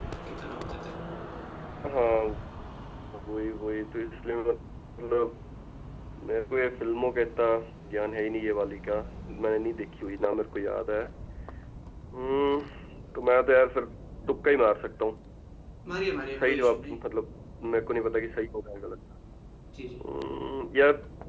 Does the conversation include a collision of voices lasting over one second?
No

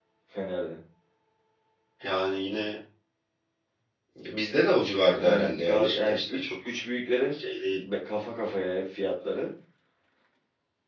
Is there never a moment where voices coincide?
No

